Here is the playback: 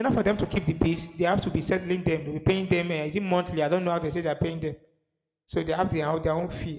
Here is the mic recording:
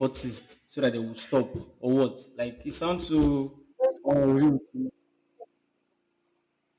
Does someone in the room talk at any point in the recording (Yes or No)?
Yes